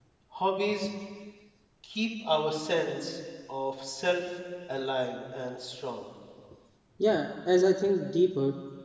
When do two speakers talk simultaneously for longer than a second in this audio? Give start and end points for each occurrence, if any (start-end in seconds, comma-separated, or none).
none